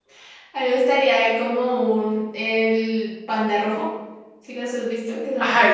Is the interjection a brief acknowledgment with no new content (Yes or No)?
No